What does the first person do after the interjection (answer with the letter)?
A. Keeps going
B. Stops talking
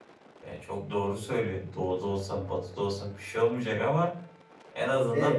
A